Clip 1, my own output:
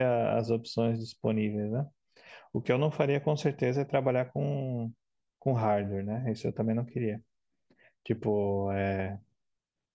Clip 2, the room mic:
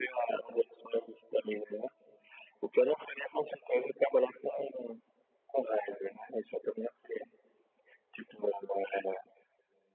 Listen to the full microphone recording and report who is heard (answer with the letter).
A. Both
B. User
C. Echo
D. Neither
C